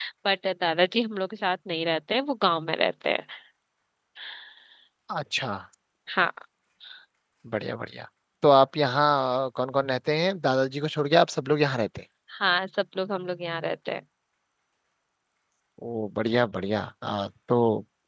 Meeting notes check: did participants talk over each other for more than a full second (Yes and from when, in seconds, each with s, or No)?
No